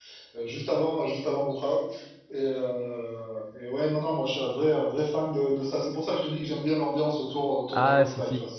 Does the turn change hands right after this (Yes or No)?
Yes